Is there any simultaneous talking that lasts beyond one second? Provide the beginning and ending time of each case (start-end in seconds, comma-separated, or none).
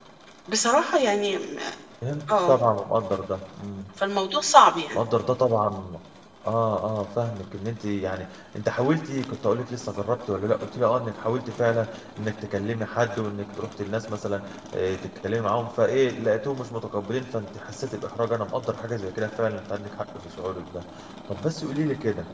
none